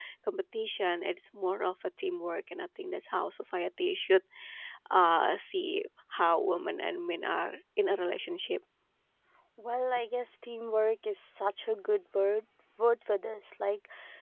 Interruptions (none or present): none